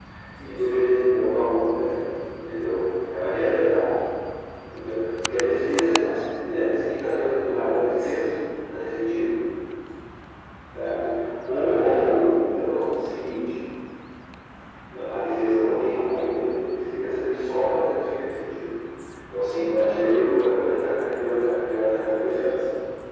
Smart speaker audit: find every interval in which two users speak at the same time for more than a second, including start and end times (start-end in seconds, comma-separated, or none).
none